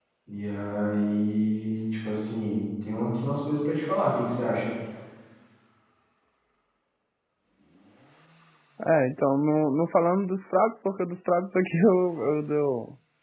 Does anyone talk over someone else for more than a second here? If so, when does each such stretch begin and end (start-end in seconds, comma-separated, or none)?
none